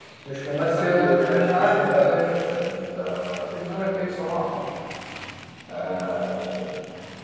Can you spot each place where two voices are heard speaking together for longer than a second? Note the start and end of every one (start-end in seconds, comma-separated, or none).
0.7-2.1